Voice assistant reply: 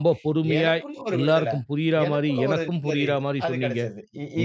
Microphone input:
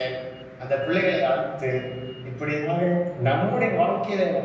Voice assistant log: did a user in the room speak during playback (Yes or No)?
Yes